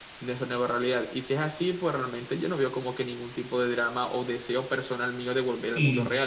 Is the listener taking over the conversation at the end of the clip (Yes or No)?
Yes